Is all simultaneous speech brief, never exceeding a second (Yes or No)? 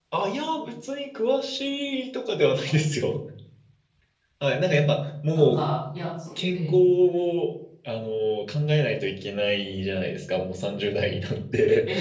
Yes